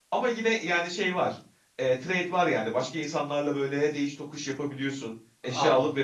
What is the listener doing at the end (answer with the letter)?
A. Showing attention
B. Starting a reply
B